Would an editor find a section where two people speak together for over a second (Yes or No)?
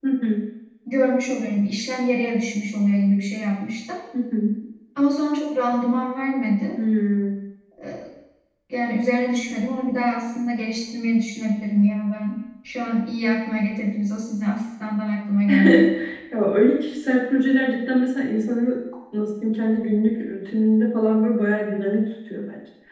No